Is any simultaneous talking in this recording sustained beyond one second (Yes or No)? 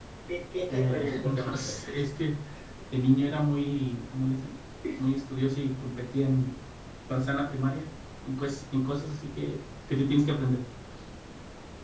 Yes